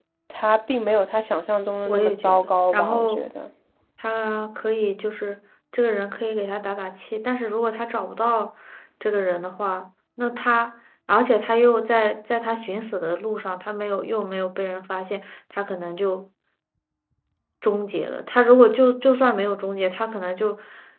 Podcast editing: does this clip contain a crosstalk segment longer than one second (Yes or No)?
Yes